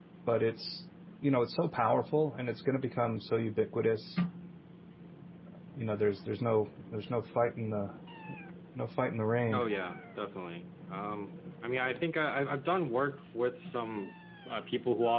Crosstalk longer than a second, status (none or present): none